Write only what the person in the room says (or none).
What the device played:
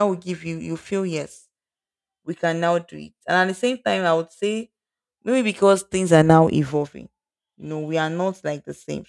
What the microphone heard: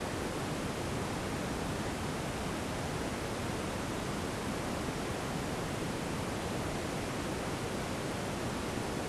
none